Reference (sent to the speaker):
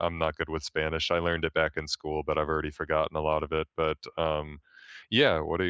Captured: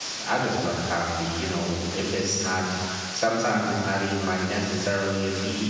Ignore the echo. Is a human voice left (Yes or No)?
Yes